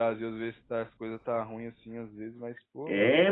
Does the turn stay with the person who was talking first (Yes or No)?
No